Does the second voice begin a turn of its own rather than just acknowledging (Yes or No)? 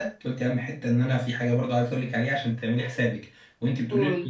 No